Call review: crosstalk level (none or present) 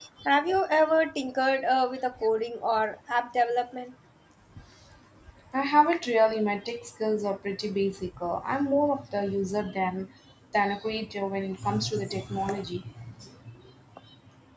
none